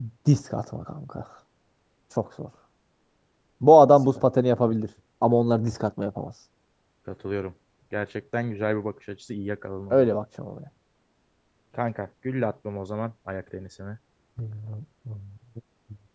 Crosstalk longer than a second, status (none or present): none